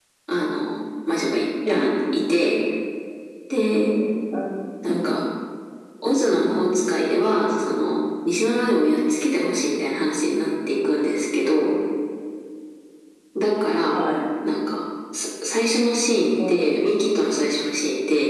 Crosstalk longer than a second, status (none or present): none